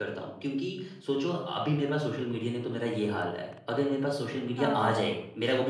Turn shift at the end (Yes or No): No